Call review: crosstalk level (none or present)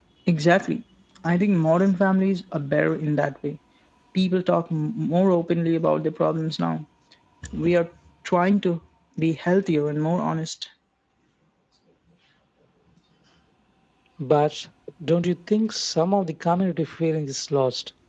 none